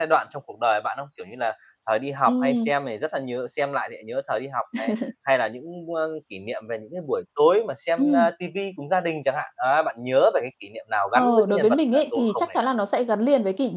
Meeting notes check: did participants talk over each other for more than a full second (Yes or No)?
Yes